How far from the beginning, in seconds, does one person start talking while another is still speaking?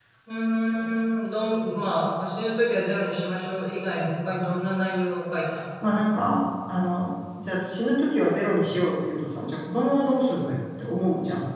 none

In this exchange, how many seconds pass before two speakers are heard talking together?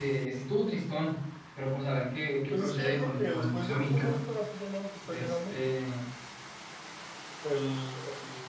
2.5 s

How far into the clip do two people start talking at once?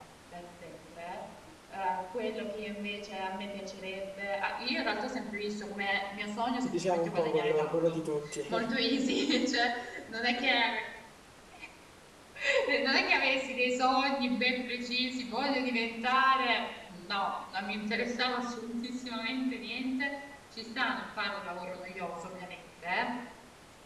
6.6 s

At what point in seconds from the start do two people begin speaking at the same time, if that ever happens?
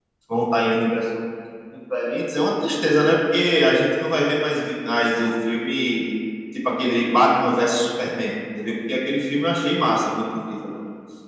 none

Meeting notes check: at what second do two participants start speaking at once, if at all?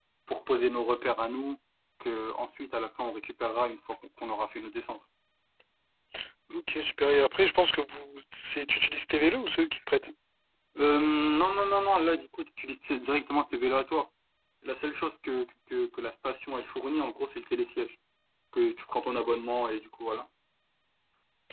none

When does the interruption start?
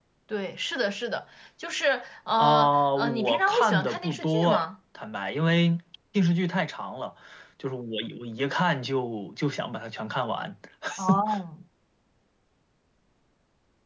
2.4 s

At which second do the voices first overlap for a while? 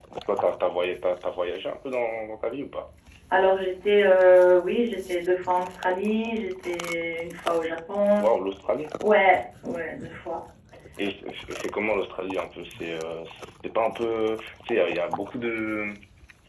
none

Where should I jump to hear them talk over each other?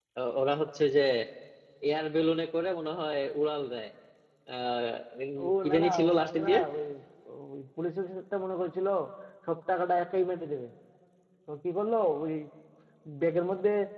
5.4 s

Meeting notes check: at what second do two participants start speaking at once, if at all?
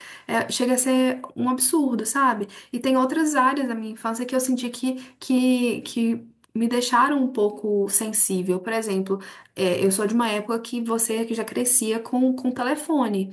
none

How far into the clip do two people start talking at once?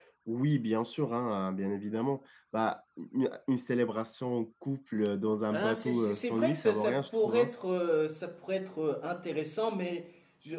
5.5 s

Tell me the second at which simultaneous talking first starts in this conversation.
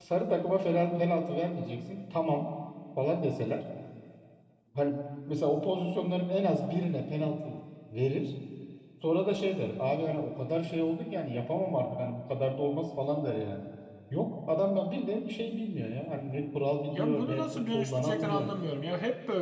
16.9 s

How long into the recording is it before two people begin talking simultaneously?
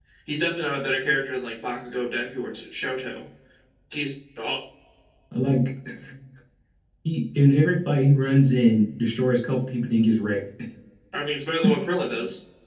none

